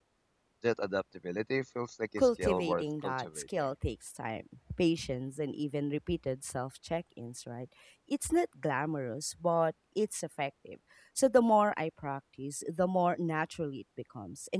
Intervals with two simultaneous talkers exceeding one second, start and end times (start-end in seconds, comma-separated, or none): 2.2-3.6